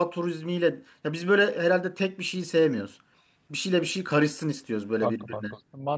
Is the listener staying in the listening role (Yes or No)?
No